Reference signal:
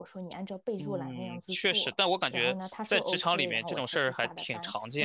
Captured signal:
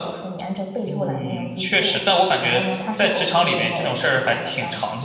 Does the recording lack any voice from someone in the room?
Yes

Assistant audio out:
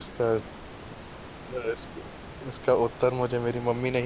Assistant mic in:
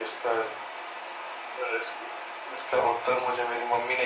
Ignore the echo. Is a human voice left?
No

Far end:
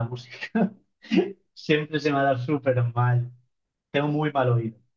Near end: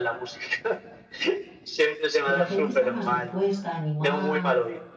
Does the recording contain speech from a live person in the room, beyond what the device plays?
Yes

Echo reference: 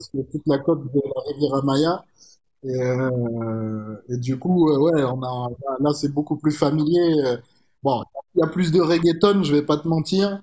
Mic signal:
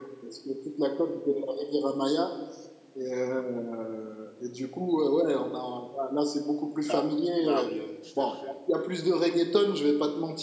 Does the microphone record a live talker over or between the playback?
Yes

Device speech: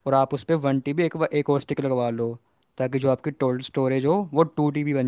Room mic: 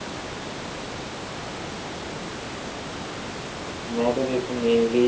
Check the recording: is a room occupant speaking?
Yes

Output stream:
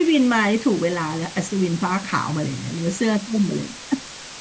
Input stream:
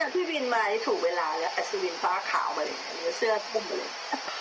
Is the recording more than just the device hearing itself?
No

